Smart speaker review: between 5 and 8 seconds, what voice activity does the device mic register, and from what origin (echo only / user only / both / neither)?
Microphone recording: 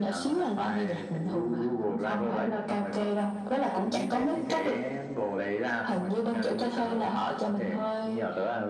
echo only